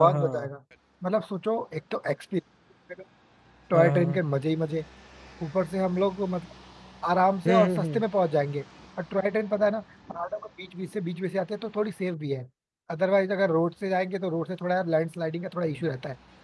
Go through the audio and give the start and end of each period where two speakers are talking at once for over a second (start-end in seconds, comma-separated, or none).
none